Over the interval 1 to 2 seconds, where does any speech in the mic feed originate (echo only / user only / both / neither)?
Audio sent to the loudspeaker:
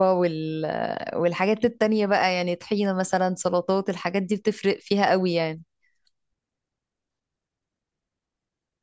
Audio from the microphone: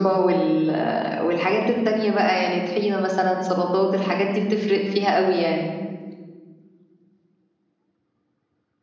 echo only